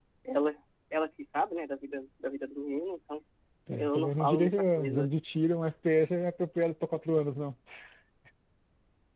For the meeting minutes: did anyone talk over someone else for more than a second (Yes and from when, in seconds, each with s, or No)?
Yes, from 3.8 s